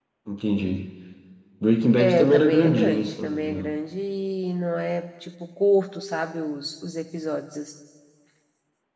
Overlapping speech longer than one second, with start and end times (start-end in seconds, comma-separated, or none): 2.0-3.8